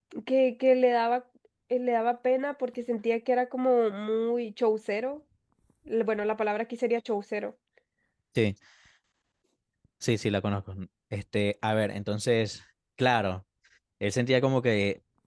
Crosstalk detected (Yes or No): No